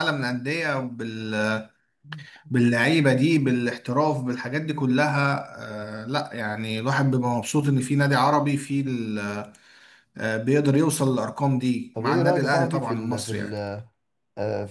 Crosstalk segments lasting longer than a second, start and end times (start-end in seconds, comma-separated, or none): 12.0-13.5